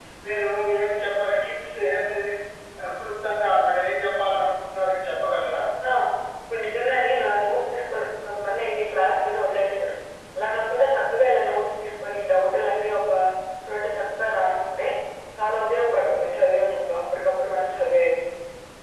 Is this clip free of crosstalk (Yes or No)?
Yes